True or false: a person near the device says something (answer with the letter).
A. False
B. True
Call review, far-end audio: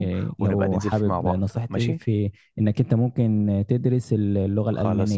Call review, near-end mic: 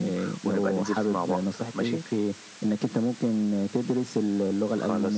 A